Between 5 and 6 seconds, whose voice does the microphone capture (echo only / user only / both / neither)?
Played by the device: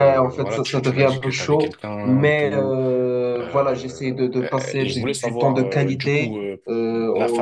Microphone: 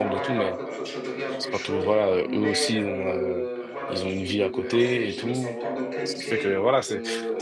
both